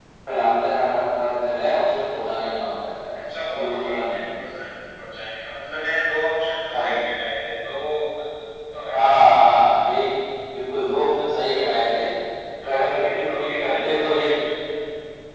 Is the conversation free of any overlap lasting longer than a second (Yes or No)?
No